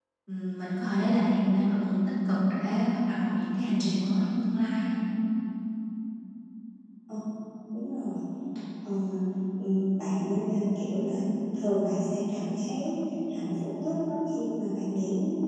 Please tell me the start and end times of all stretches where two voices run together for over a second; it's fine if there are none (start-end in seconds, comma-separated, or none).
none